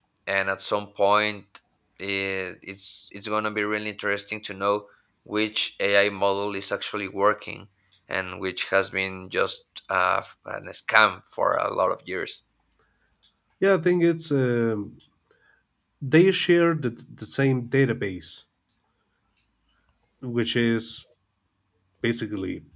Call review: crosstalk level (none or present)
none